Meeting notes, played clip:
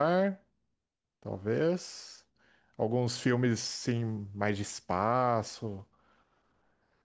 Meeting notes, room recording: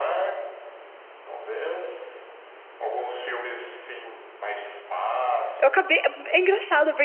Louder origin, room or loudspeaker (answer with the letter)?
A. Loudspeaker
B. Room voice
B